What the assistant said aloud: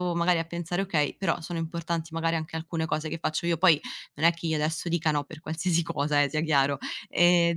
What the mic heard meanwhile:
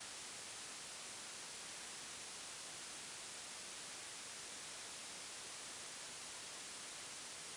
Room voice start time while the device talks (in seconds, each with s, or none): none